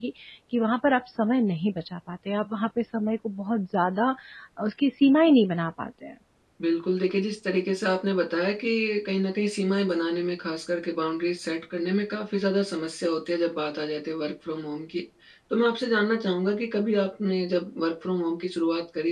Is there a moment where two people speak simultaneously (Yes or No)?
No